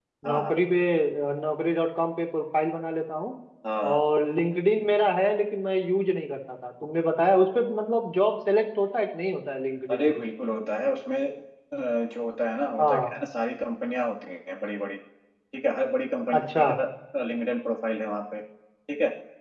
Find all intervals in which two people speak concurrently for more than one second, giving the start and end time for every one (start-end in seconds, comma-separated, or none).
none